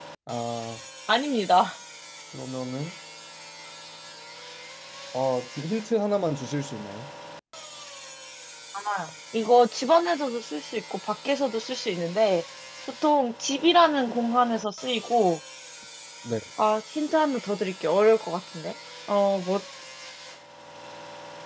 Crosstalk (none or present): none